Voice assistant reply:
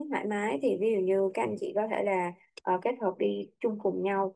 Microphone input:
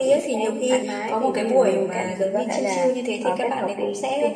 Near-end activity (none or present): present